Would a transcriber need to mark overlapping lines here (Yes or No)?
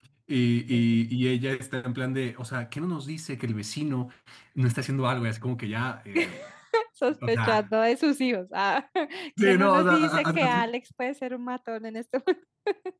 Yes